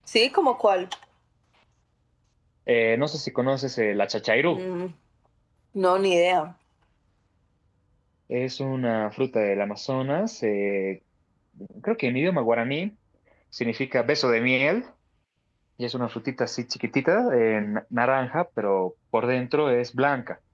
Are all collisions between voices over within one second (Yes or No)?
Yes